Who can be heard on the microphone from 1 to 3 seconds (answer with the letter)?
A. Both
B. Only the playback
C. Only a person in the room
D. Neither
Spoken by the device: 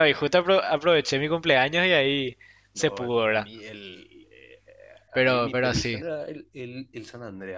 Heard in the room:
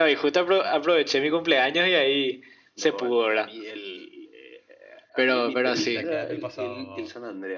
B